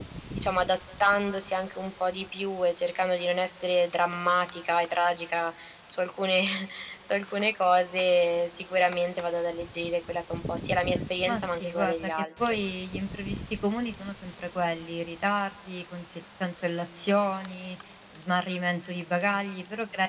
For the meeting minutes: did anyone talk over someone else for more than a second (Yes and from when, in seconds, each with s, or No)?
Yes, from 11.2 s